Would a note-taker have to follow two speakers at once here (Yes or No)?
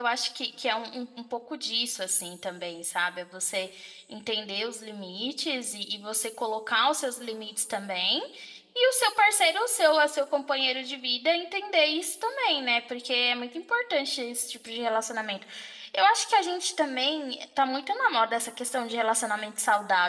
No